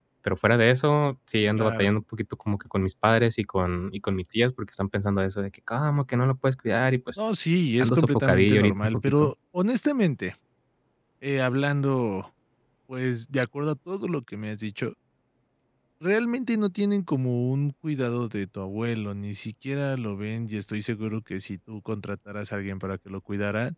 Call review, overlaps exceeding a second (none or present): present